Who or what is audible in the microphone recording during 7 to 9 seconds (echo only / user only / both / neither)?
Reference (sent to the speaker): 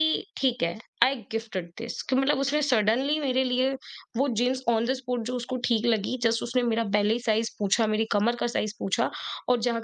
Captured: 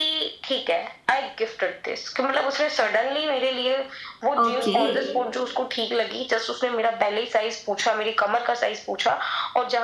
echo only